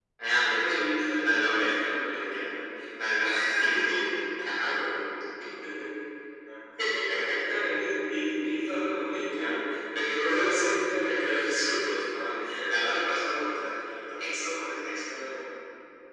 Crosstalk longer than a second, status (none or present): present